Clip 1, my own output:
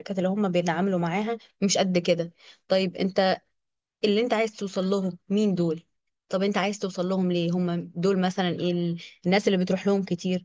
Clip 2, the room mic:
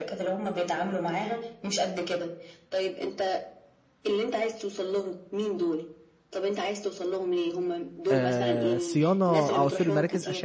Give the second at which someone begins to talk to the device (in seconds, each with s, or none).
8.1 s